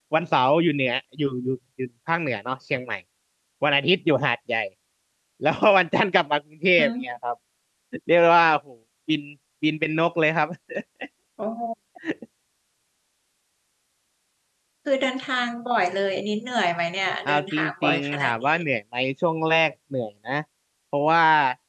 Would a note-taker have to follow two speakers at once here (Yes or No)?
Yes